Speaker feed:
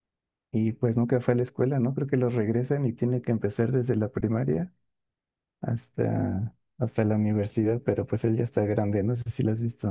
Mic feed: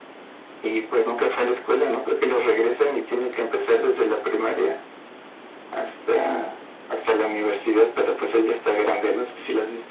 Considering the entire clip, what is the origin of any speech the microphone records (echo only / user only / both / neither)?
echo only